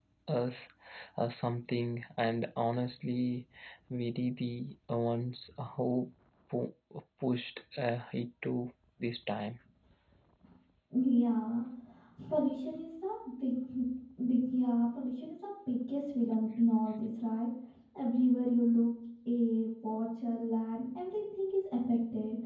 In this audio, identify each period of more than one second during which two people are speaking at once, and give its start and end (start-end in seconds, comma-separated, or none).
none